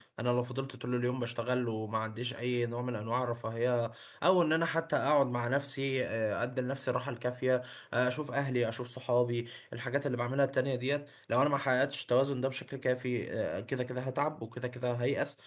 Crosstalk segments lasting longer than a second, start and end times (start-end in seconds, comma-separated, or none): none